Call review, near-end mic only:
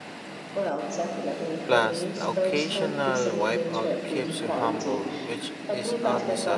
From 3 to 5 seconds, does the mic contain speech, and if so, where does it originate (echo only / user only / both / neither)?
both